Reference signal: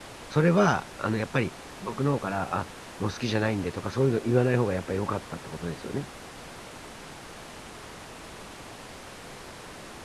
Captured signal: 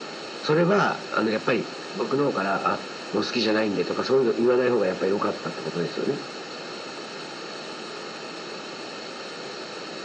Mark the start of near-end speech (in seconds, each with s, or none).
none